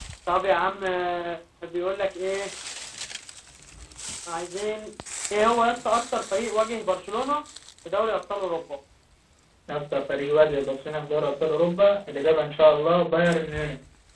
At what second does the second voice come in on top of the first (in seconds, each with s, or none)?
none